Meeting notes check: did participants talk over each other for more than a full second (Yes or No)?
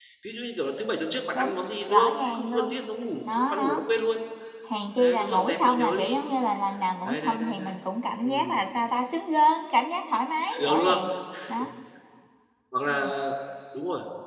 Yes